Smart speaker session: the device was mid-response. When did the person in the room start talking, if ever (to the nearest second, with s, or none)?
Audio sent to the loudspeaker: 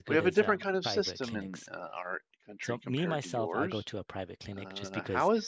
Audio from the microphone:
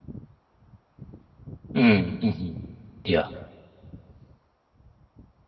2 s